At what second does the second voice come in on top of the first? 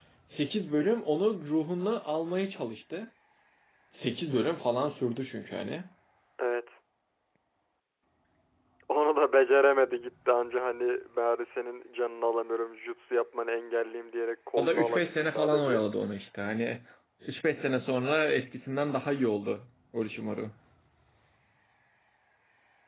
15 s

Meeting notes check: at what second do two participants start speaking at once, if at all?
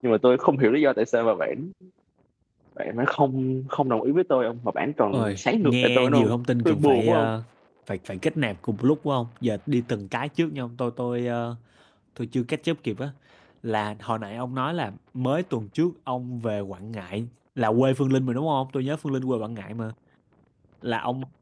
5 s

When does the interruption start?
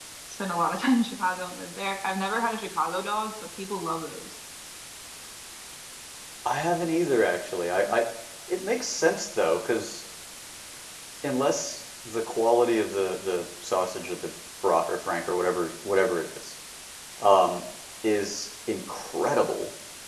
none

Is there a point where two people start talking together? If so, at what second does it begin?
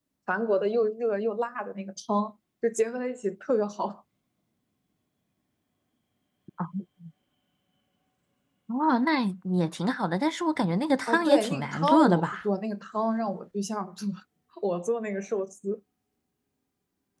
11 s

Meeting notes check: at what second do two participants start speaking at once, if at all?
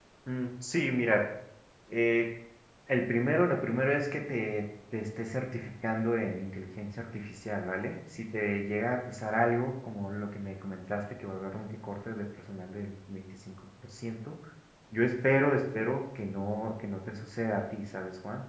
none

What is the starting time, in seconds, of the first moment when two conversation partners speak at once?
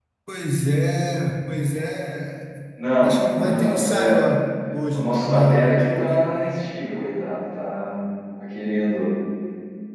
3 s

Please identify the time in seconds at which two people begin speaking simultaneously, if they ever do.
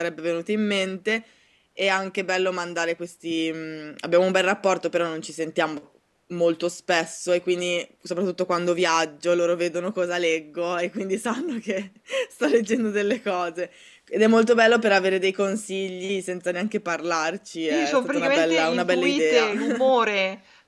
18 s

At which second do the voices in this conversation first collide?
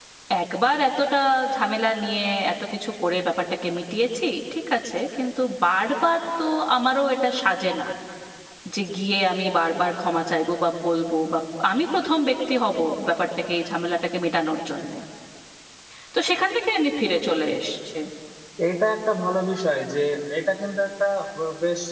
none

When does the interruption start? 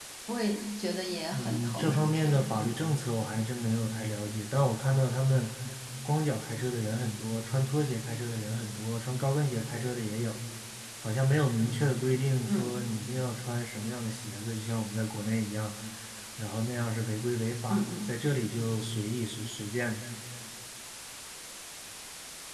1 s

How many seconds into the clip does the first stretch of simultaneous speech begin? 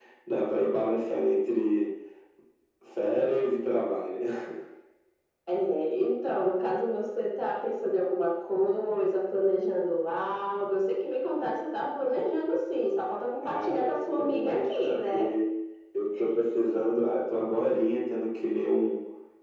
13 s

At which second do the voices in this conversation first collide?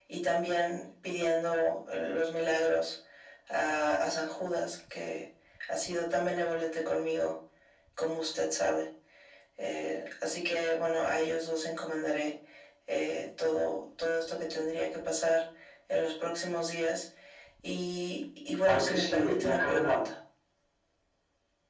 19 s

